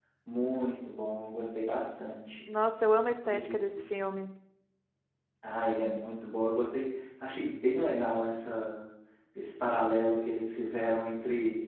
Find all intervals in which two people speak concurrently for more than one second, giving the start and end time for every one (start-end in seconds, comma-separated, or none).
none